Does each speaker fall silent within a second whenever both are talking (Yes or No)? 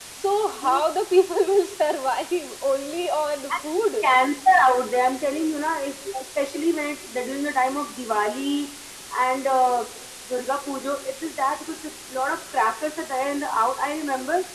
Yes